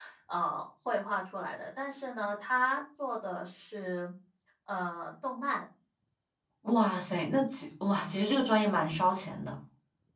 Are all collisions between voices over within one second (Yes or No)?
Yes